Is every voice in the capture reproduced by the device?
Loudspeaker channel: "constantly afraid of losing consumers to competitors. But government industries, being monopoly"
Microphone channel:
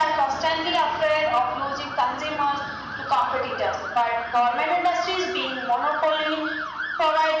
Yes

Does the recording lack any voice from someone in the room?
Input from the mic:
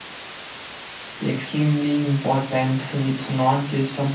No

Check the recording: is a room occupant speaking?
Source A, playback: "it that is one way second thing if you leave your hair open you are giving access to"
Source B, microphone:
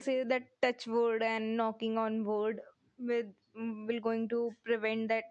Yes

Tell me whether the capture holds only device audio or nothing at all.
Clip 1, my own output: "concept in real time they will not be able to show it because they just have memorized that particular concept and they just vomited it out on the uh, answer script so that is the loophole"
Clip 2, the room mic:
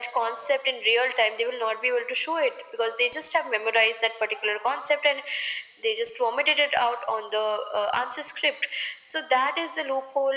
Yes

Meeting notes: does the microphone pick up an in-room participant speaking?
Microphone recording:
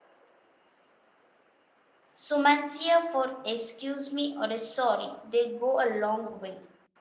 Yes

